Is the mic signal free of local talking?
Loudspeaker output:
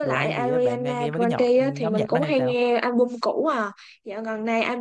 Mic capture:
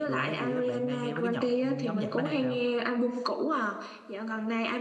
Yes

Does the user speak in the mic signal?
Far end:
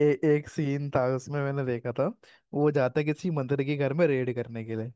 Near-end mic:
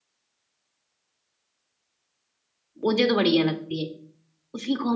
Yes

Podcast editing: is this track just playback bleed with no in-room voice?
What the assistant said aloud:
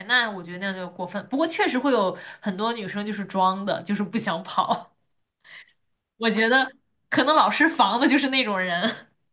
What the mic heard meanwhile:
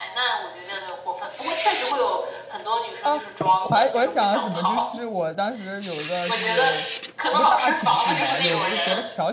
No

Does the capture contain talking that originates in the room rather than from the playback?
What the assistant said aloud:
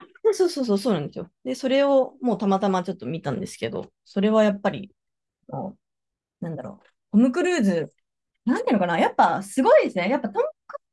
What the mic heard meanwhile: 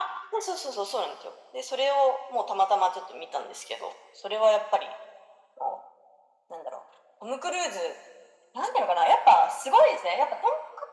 No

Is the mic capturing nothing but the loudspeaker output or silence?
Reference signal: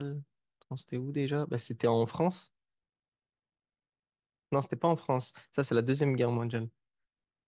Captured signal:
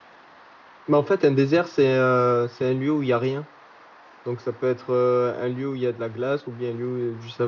No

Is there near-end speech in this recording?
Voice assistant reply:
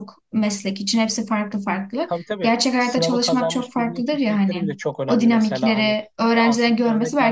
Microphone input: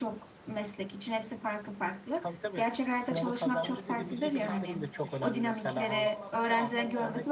Yes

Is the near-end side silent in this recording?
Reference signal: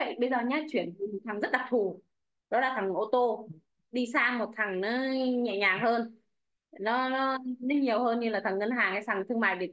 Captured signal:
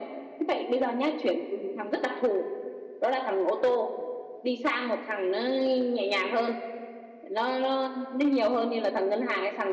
Yes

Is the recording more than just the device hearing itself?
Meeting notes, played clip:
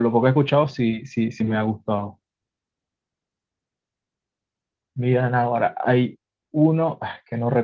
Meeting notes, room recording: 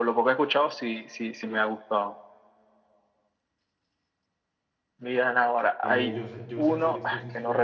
Yes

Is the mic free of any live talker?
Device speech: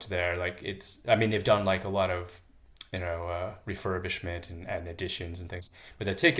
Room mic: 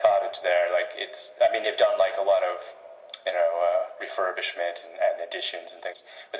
Yes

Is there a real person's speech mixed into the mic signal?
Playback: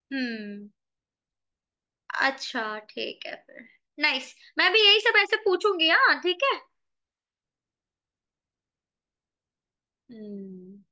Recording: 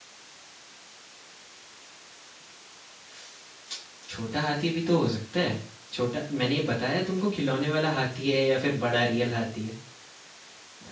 Yes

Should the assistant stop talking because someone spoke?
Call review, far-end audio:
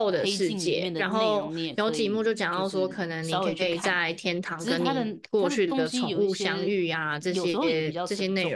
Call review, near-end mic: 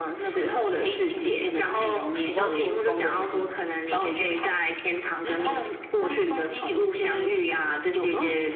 Yes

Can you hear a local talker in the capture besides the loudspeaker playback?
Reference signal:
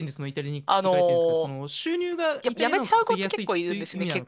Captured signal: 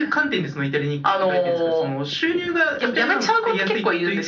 No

